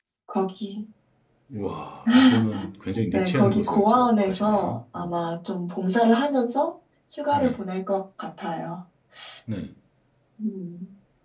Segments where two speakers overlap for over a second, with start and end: 3.1-5.1

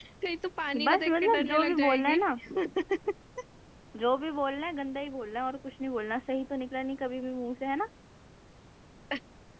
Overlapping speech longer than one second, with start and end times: 0.8-2.2

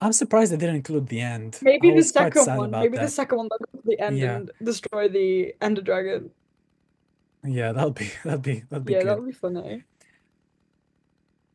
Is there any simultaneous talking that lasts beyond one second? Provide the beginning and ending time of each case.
1.8-3.1

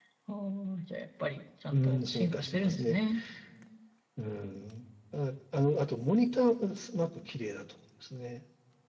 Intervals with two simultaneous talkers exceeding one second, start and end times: 1.7-3.0

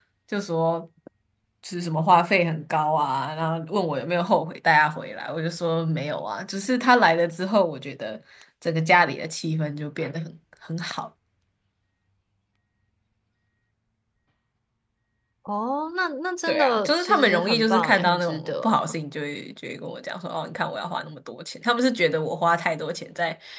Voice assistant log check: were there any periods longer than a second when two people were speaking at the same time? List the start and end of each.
16.5-18.9

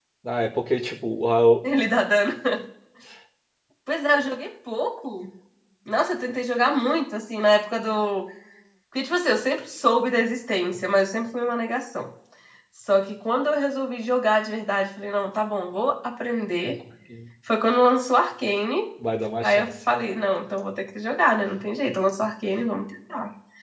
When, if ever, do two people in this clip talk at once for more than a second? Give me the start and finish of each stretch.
none

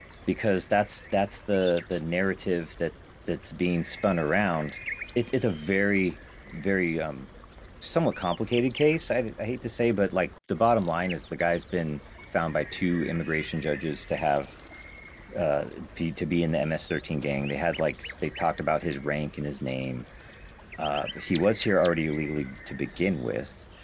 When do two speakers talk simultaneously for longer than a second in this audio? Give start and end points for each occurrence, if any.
none

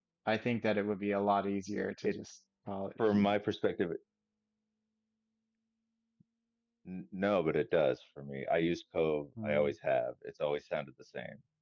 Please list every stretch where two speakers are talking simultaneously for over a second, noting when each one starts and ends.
none

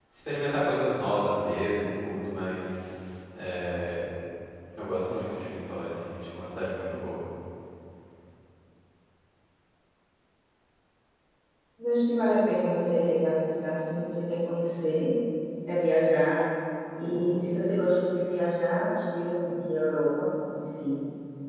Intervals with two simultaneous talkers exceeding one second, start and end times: none

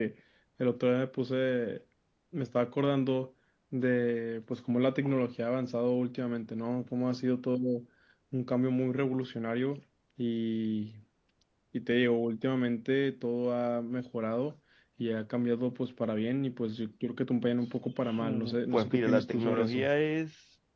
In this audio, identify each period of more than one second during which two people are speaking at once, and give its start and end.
18.2-19.9

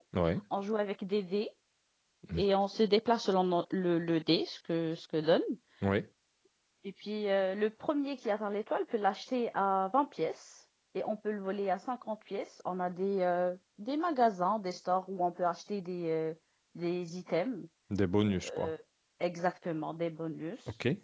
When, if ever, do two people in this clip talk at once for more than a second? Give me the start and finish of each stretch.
none

